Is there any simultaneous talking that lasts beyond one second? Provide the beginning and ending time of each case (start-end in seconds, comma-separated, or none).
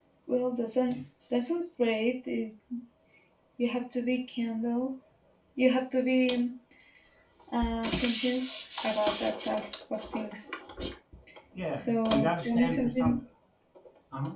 11.7-13.2